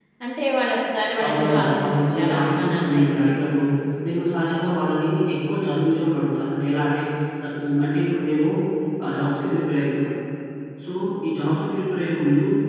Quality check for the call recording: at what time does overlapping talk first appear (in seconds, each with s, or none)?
1.2 s